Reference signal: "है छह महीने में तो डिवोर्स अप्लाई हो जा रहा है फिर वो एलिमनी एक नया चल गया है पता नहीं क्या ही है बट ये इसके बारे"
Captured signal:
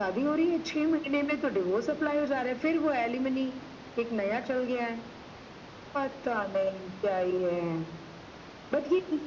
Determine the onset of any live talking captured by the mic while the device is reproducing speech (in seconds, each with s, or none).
none